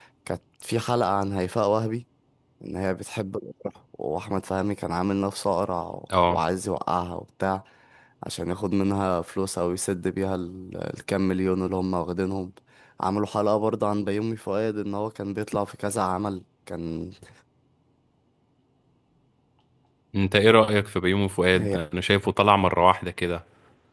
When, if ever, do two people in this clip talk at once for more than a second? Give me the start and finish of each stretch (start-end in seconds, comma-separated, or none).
none